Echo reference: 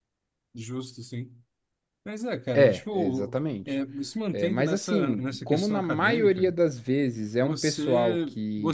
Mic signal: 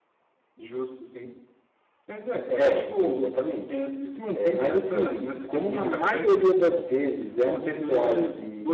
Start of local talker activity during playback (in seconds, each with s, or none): 5.7 s